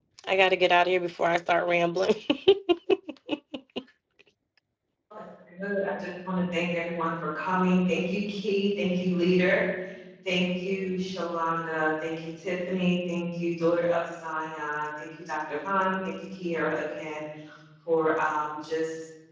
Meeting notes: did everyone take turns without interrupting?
Yes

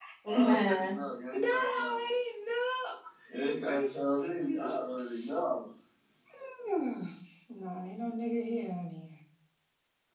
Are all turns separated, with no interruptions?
No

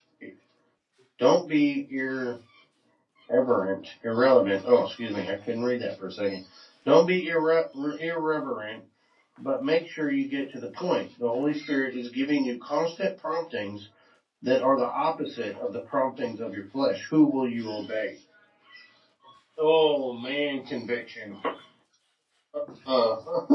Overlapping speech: No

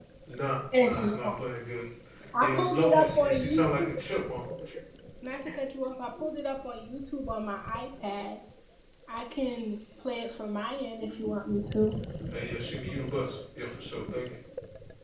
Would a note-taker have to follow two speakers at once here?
Yes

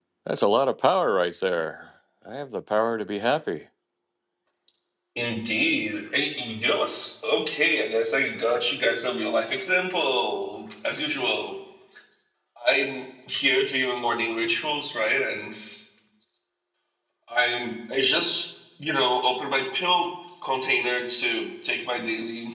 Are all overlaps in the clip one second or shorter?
Yes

